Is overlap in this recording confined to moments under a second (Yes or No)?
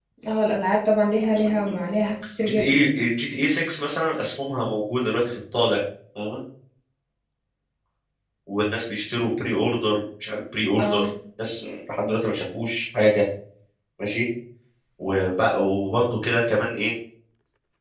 Yes